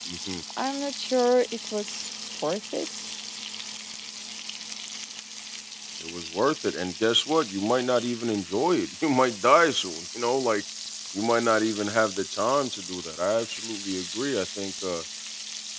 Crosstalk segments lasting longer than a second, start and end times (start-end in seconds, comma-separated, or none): none